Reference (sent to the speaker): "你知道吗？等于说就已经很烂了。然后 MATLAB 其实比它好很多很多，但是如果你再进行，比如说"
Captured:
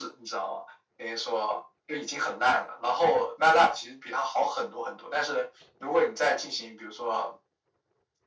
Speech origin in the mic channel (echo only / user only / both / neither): echo only